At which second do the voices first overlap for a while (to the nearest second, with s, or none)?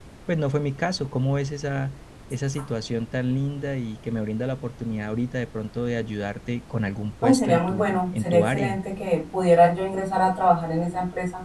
7 s